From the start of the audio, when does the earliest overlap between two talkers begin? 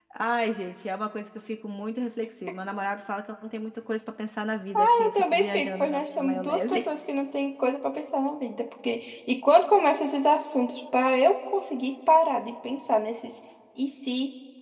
5.0 s

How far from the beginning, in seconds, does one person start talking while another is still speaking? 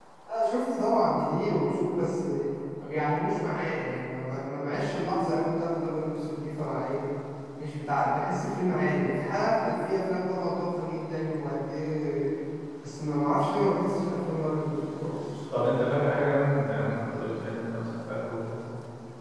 none

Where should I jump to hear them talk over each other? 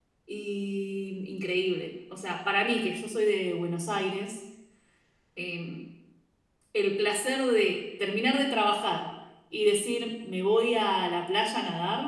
none

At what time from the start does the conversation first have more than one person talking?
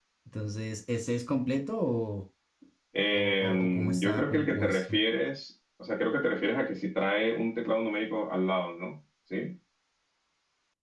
3.1 s

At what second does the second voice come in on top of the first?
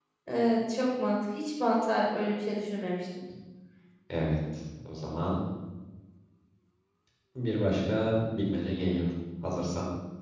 none

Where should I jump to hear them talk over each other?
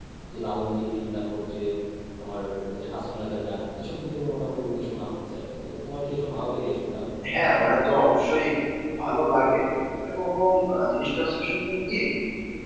none

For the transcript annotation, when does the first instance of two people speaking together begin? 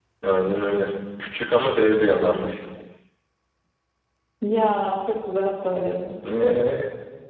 none

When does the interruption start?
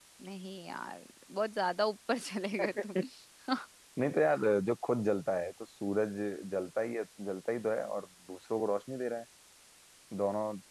none

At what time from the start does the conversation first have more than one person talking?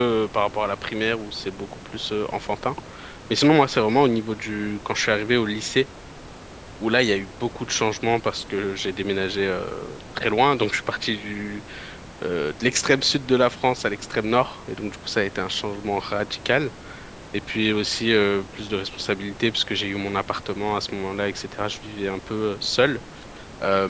none

